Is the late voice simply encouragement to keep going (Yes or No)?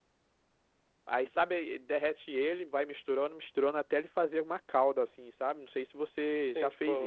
No